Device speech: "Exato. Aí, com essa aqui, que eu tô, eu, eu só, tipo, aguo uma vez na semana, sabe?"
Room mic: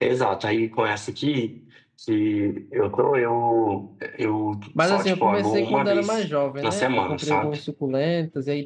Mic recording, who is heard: both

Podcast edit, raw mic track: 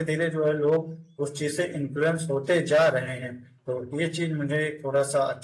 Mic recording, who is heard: user only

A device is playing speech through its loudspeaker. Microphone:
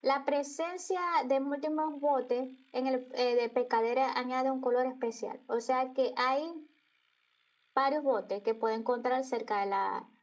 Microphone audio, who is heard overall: echo only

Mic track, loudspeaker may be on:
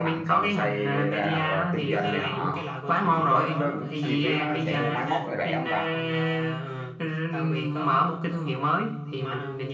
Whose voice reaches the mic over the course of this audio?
both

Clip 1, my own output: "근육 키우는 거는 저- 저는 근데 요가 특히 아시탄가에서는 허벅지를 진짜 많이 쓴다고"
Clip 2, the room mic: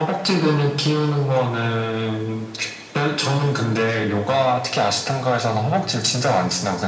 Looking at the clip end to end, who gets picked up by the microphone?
echo only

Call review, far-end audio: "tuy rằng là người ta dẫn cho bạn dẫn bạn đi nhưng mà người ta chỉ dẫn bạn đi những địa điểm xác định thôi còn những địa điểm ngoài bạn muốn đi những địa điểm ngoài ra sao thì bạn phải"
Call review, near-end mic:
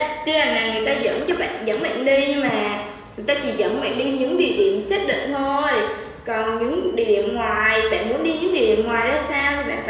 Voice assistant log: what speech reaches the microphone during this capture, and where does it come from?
echo only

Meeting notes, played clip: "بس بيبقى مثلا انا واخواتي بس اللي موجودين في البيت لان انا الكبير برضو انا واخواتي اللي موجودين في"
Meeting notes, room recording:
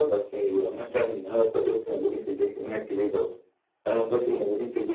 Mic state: echo only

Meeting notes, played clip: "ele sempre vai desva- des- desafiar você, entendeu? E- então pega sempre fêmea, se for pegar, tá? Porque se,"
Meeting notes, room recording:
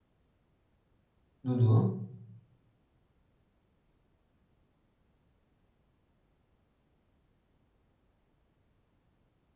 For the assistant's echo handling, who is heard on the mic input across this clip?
user only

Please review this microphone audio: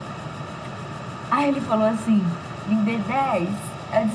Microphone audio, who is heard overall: echo only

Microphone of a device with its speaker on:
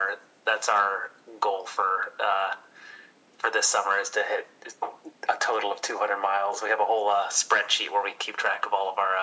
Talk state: echo only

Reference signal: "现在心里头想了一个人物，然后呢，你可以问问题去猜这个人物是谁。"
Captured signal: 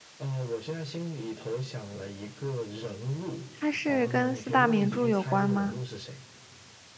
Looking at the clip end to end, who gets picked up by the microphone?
both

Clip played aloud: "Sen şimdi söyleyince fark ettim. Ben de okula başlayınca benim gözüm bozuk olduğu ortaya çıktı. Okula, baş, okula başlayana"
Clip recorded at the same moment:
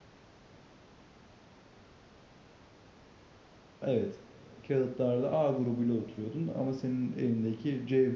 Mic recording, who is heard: user only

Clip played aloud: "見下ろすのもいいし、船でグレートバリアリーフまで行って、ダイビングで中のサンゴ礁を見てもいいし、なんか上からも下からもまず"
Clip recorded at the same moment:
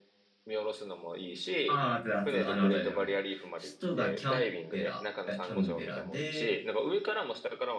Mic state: both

